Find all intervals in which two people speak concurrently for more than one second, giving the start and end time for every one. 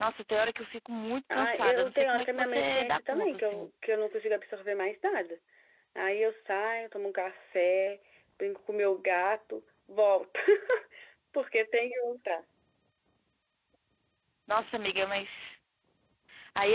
1.3-3.7

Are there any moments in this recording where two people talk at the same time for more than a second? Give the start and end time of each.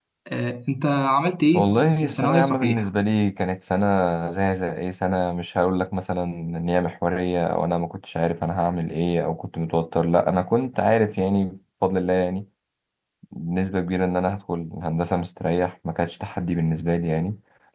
1.5-2.9

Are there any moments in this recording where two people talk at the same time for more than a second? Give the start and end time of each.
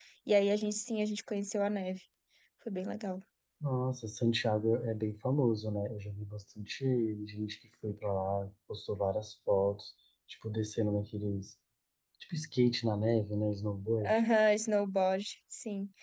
none

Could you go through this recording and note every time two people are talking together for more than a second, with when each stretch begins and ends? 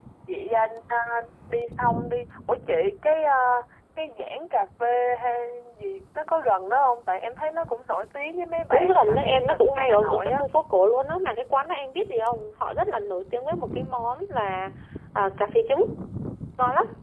8.7-10.4

